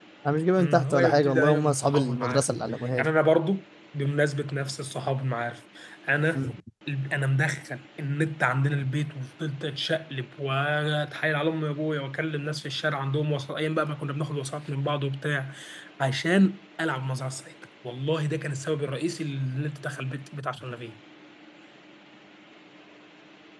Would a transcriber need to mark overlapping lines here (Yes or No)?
Yes